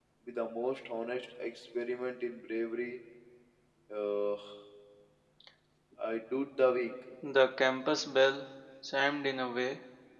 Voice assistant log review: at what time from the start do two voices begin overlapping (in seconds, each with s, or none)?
none